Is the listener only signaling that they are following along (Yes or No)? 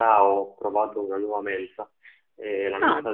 Yes